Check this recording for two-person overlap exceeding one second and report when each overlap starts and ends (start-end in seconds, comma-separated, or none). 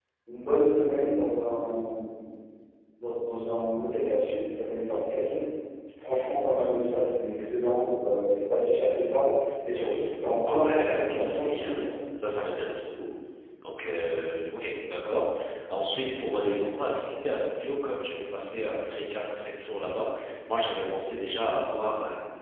10.5-11.9